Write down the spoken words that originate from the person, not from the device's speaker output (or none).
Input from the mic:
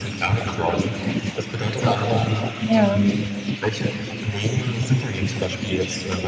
Ja.